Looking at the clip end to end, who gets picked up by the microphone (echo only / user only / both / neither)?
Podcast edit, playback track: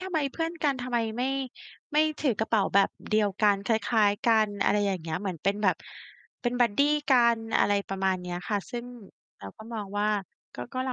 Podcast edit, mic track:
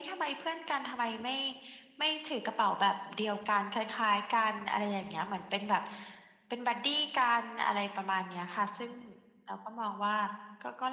echo only